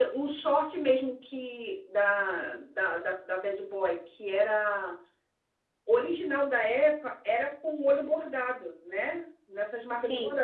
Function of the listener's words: listening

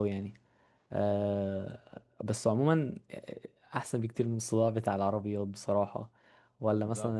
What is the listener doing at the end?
listening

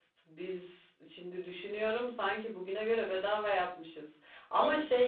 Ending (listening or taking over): listening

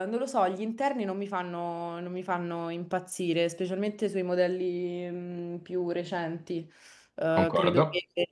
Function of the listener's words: listening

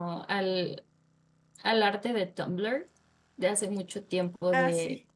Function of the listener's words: listening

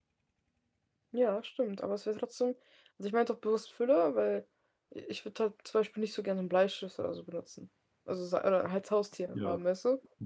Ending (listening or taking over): taking over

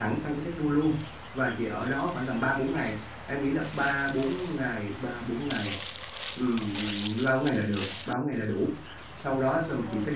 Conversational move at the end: listening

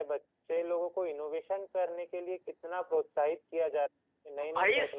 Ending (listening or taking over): taking over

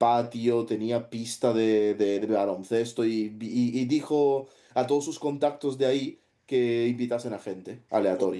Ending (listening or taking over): taking over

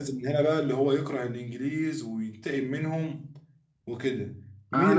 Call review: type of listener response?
taking over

